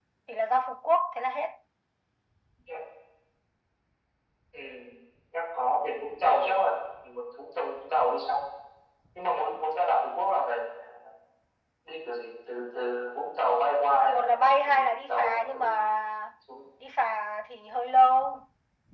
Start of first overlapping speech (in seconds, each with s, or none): 14.0 s